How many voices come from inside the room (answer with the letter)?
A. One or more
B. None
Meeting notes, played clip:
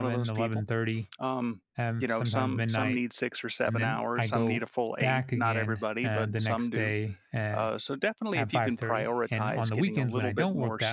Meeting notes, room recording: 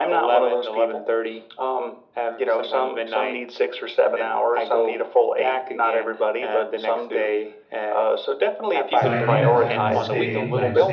A